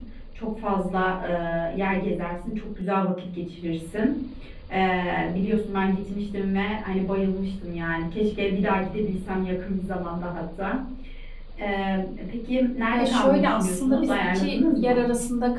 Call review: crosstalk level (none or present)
present